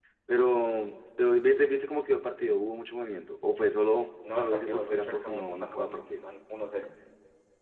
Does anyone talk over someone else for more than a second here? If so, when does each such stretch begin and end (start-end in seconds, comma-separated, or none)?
4.3-6.2